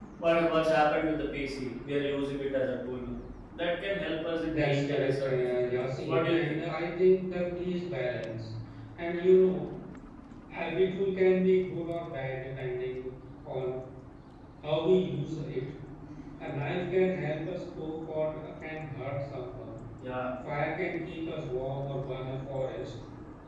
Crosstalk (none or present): present